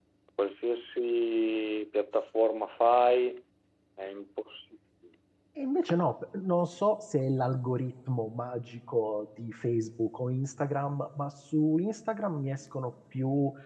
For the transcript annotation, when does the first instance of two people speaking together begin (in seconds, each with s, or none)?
none